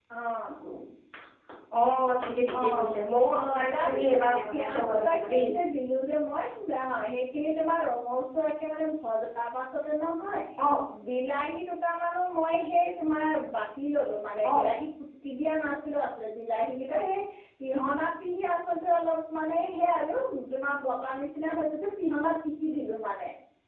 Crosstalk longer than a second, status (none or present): present